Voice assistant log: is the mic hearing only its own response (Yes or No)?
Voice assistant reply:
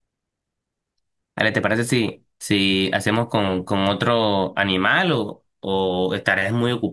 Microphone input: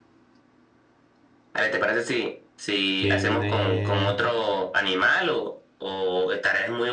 No